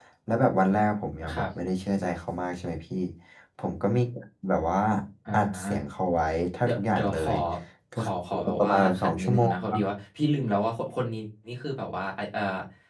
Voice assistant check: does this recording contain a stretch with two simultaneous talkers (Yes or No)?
Yes